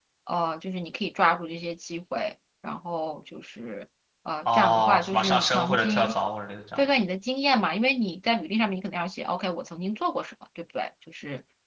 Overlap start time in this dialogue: 4.5 s

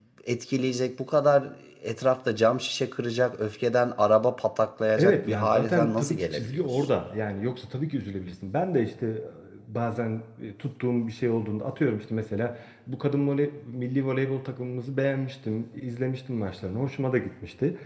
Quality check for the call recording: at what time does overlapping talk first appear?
5.0 s

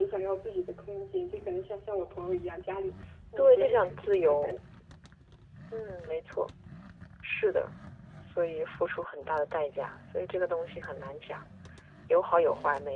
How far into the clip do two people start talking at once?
3.4 s

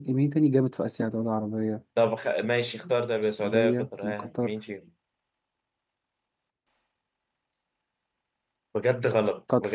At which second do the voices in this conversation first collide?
3.2 s

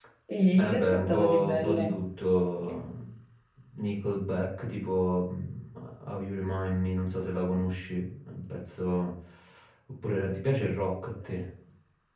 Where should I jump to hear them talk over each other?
0.6 s

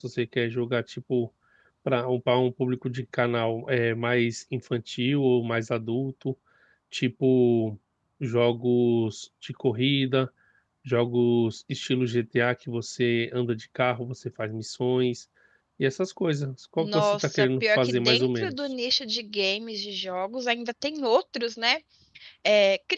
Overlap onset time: 16.8 s

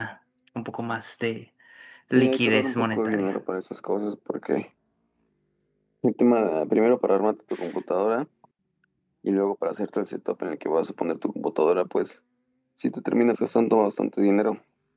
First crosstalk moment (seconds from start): 2.2 s

